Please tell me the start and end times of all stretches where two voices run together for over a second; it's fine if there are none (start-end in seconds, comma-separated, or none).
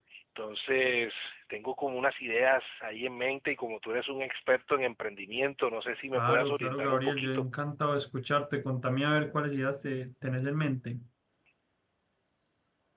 6.2-7.5